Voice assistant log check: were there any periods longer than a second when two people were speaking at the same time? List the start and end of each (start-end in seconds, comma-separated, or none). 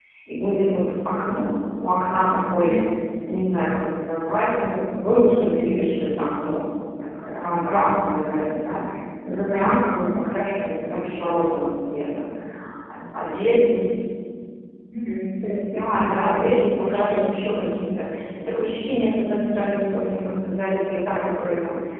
15.7-17.7